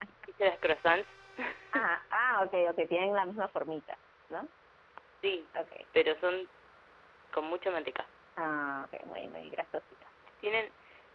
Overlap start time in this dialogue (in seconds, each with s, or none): none